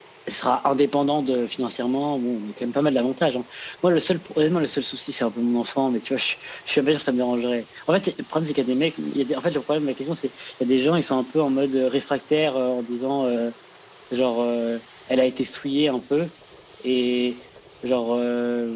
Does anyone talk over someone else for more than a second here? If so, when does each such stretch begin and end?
none

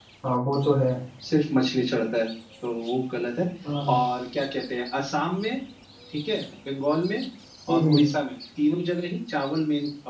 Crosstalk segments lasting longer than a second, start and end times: none

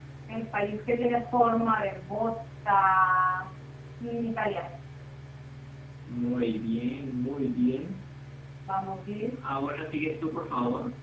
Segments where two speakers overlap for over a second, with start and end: none

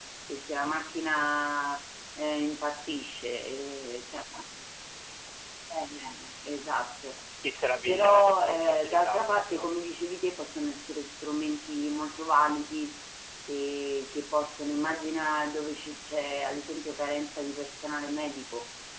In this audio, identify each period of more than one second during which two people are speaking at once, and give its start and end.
7.9-9.7

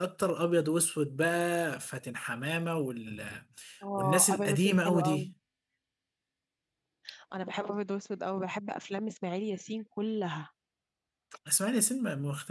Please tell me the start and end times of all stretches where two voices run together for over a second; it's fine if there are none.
4.0-5.3

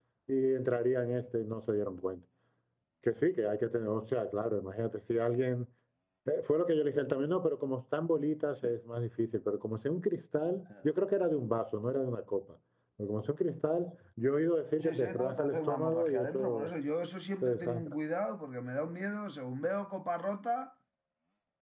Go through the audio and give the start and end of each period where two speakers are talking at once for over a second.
14.8-16.7

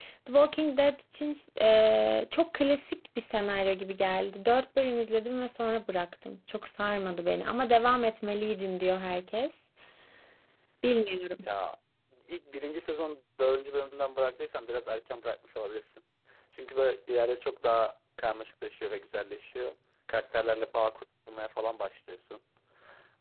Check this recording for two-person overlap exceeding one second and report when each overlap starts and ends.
none

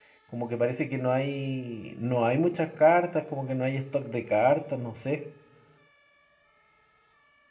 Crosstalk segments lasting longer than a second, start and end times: none

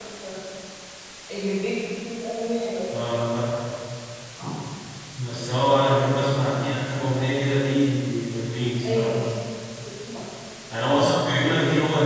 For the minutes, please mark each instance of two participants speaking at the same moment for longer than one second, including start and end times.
none

